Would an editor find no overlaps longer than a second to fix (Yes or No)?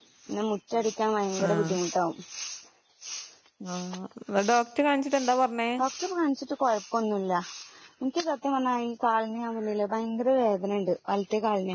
Yes